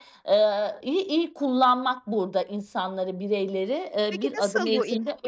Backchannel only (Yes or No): No